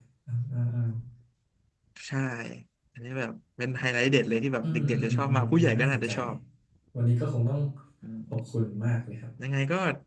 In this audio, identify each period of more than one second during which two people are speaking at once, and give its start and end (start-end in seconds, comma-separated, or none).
4.6-6.1